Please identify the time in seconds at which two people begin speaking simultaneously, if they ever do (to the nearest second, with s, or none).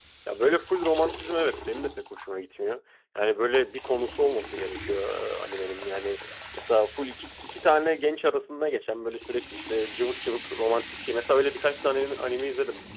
none